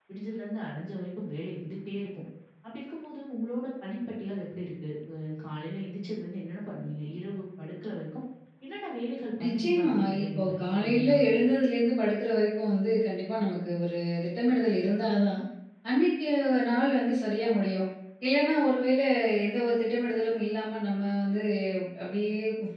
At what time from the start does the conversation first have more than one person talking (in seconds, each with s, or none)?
9.4 s